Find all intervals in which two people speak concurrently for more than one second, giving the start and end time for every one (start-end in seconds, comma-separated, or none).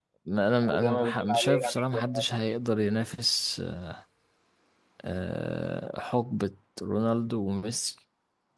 0.6-2.2